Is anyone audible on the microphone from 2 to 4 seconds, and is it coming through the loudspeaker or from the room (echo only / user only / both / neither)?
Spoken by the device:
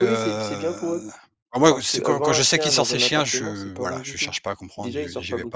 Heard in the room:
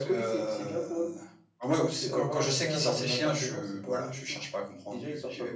echo only